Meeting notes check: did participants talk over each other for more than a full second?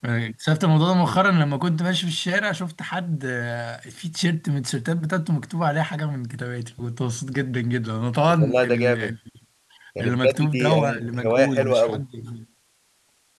Yes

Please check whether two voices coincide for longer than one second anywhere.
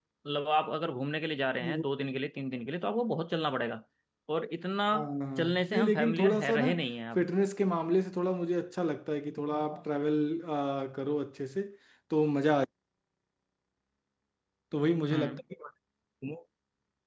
Yes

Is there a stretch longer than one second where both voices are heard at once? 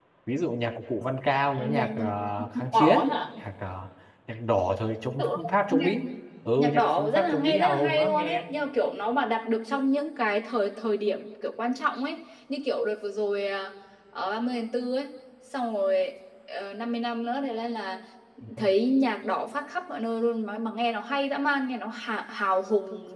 Yes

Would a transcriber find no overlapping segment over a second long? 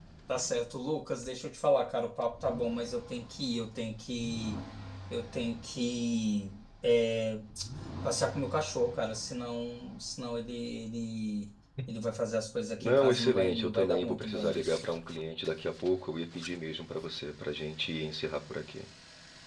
No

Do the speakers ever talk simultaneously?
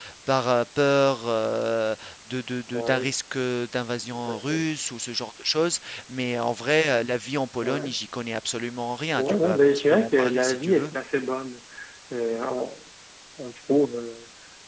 Yes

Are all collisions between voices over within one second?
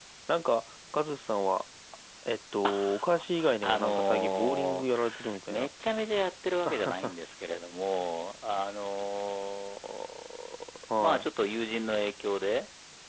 No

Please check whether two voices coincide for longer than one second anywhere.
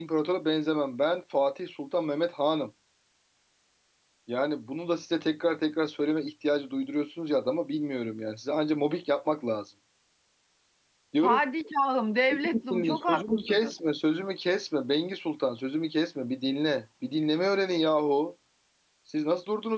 Yes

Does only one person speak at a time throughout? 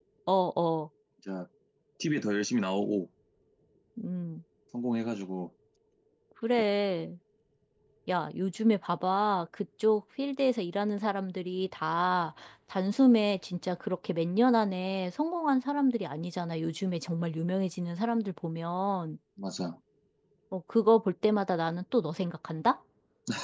Yes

